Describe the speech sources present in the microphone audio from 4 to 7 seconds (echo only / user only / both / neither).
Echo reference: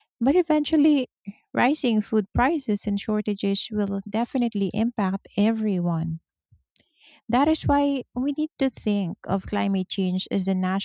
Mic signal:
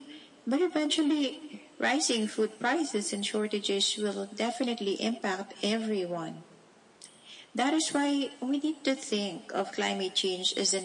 echo only